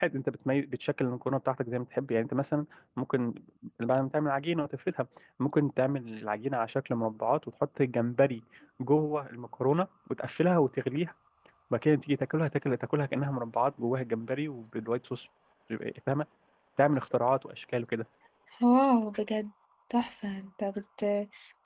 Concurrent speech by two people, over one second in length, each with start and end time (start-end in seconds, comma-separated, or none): none